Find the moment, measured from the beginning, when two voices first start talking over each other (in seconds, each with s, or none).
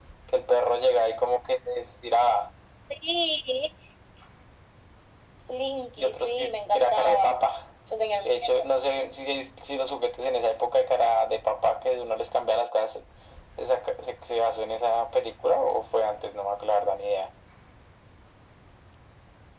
6.0 s